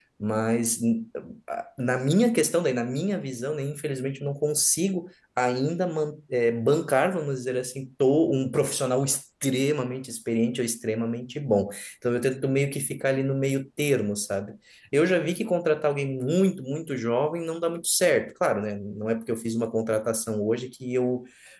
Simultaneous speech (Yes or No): No